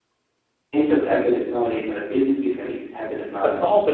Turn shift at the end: Yes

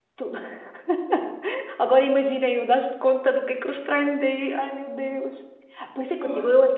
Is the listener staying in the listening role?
Yes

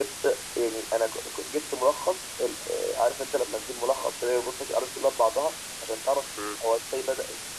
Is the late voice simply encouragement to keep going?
Yes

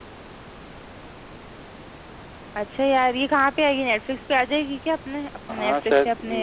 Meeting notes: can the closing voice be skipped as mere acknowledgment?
No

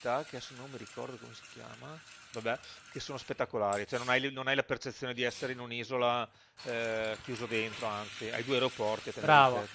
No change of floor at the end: No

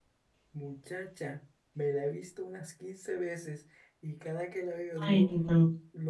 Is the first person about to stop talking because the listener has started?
No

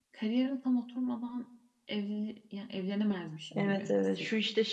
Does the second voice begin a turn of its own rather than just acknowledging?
Yes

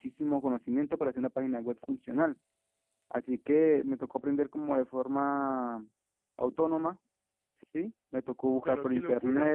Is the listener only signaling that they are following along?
No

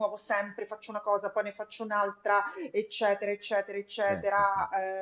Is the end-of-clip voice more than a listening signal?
No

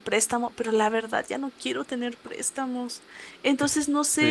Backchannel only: No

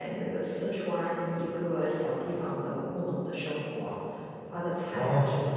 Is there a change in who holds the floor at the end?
No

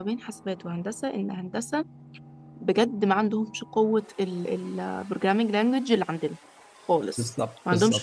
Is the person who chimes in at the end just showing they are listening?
Yes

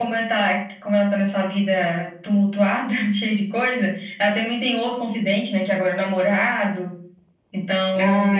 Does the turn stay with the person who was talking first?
Yes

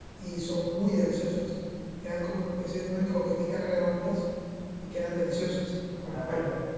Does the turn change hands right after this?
Yes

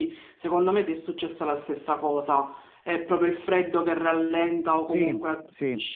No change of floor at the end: Yes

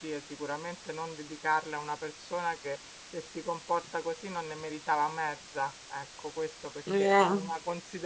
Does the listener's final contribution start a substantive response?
No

